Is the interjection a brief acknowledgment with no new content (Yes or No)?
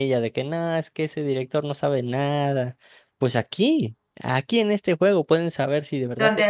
Yes